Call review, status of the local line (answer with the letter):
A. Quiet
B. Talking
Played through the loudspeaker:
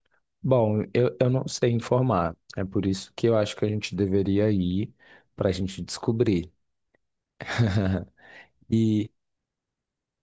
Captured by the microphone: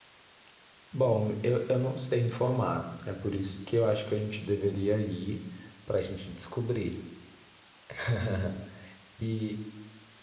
A